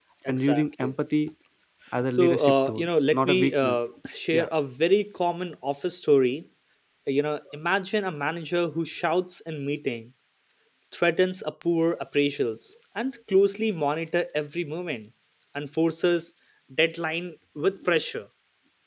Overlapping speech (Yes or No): Yes